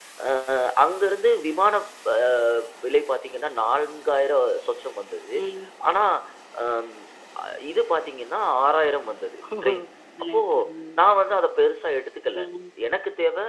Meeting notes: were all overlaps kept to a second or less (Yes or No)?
Yes